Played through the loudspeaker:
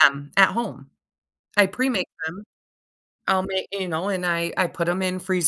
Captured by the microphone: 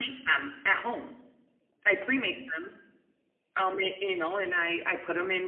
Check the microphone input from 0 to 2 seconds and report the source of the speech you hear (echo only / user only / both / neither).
echo only